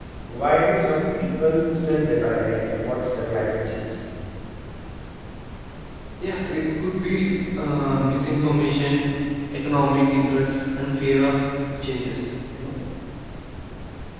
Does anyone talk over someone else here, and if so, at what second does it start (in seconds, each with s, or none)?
none